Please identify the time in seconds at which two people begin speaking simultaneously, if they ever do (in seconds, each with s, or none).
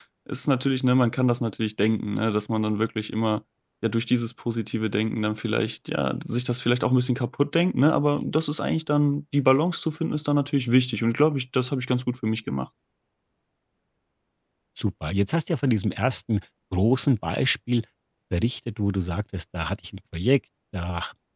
none